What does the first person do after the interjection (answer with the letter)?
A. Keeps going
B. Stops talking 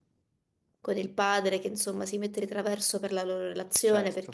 A